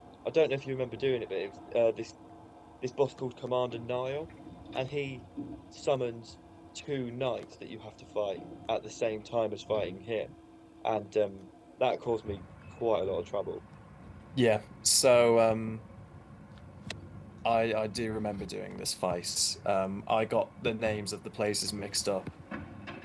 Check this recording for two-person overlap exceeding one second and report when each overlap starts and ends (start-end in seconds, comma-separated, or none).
none